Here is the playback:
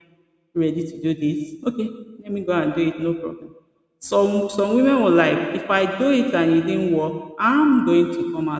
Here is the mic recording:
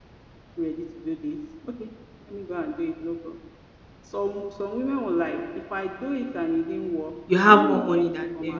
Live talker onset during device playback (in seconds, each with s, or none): 7.3 s